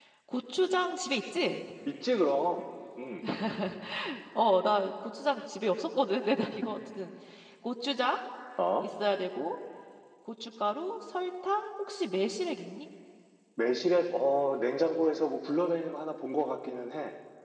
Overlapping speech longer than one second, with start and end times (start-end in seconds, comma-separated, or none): none